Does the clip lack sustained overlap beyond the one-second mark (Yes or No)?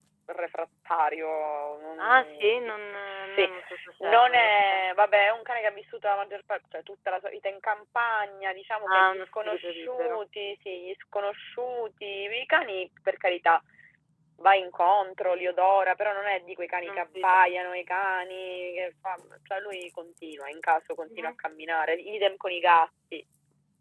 No